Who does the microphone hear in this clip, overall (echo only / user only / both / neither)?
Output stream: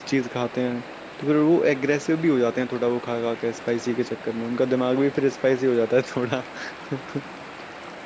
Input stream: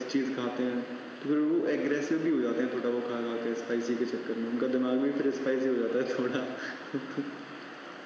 echo only